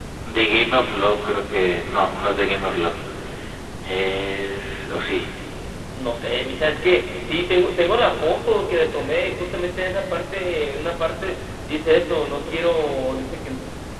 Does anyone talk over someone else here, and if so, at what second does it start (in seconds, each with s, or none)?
none